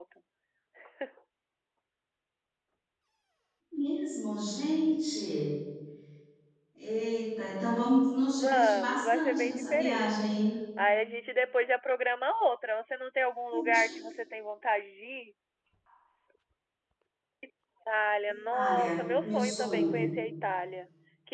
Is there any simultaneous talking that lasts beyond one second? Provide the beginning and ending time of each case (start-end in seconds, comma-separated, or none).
8.4-10.3, 18.5-19.9